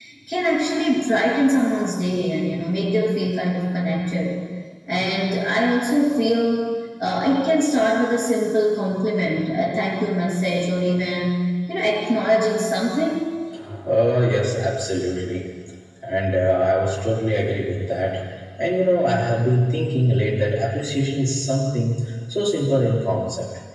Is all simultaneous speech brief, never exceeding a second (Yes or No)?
Yes